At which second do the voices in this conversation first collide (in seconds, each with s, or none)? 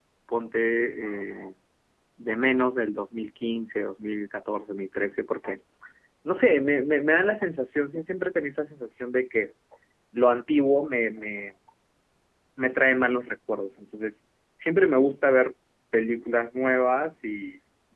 none